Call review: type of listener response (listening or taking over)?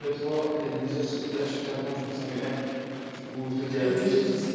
taking over